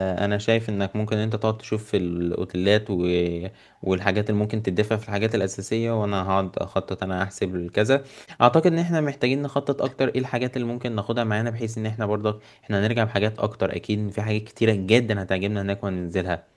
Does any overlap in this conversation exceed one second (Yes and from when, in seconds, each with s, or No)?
No